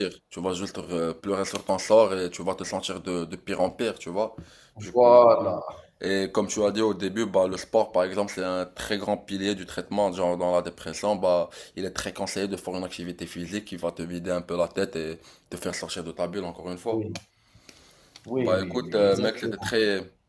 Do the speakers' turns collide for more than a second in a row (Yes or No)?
Yes